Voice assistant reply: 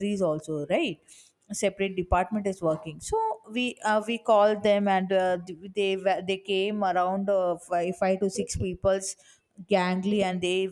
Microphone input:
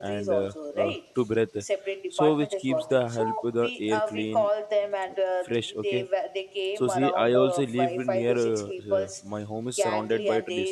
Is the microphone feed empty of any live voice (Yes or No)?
No